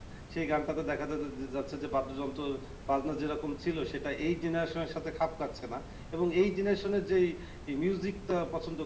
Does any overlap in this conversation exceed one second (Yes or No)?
No